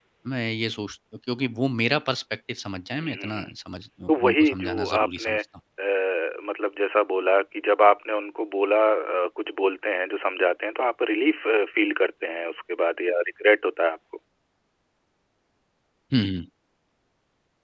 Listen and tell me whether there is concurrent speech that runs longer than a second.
Yes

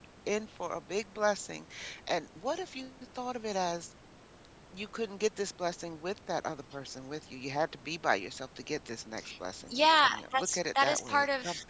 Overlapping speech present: Yes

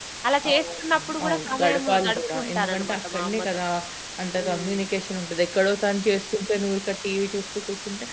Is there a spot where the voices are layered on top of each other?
Yes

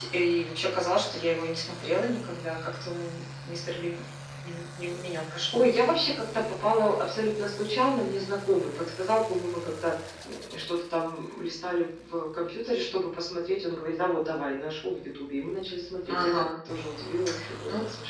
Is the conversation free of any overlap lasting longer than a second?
Yes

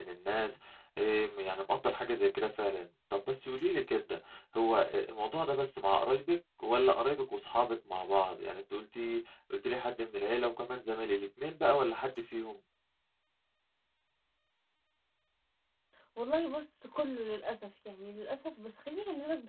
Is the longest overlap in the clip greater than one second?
No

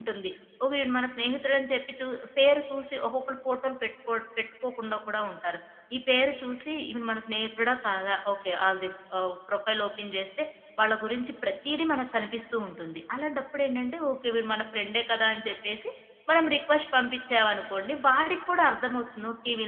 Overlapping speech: No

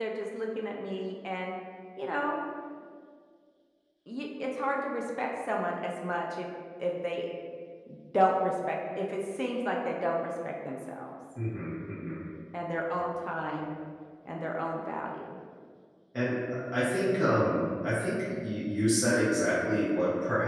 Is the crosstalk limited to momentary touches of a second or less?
Yes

